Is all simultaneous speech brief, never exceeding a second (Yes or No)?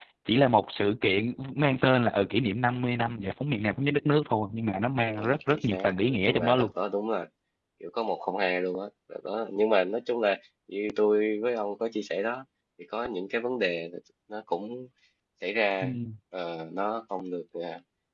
No